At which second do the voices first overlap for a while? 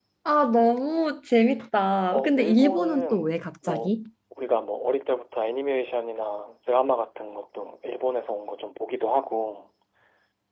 2 s

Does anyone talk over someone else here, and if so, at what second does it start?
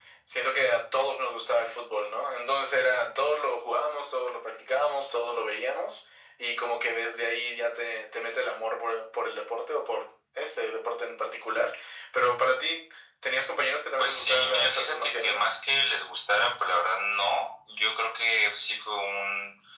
14 s

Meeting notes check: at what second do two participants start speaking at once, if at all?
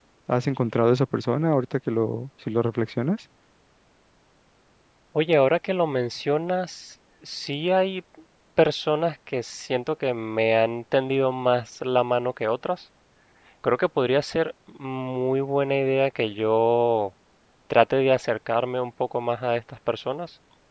none

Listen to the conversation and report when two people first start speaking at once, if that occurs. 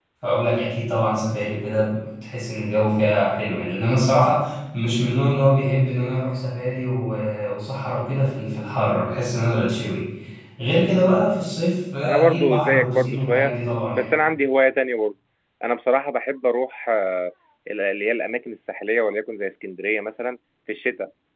12 s

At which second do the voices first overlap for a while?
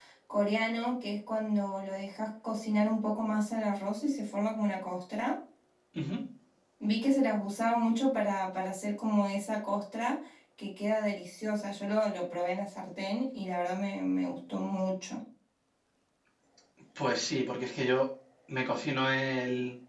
none

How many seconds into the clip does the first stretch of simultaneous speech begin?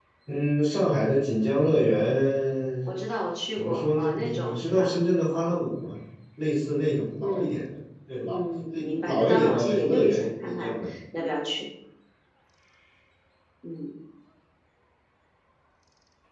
4 s

